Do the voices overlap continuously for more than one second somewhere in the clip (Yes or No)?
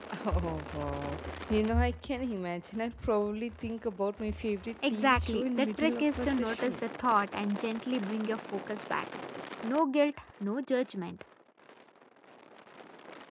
Yes